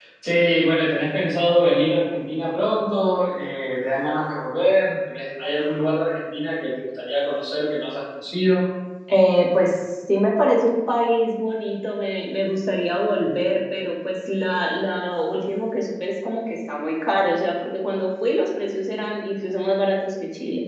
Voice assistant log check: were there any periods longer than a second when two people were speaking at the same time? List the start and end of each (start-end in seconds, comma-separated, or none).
none